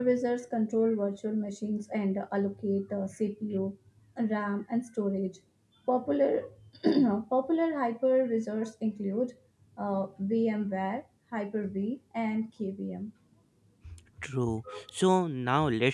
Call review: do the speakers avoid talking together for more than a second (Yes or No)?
Yes